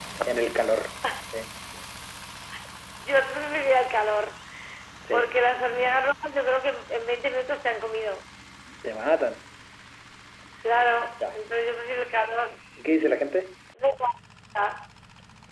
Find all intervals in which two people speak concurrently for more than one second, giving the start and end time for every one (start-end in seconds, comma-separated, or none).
none